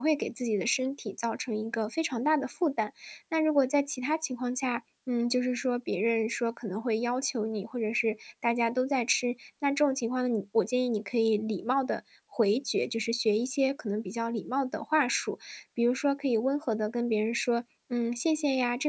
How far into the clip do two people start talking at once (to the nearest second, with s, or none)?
none